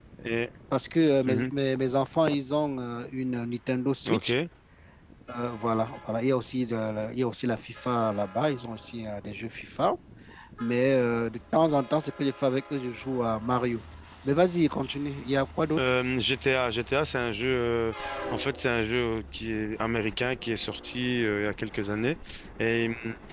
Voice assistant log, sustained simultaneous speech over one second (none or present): none